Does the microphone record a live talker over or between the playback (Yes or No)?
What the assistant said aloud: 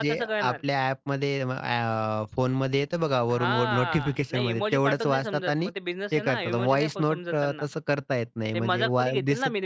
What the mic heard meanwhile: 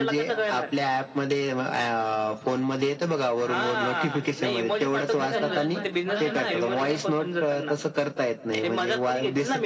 Yes